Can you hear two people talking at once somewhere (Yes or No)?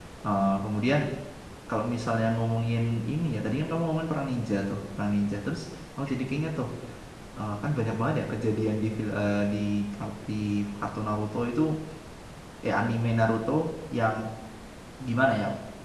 No